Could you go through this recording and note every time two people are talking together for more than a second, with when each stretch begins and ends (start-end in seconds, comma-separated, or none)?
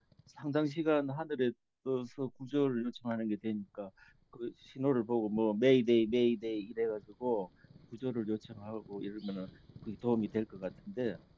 none